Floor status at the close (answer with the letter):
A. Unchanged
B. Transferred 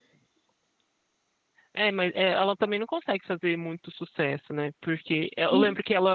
A